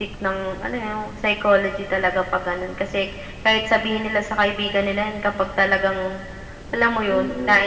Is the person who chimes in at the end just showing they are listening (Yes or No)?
No